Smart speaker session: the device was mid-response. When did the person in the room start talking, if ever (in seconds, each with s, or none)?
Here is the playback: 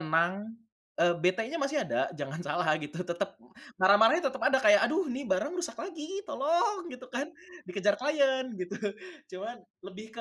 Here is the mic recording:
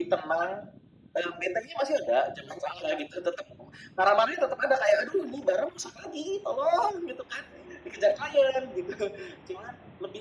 none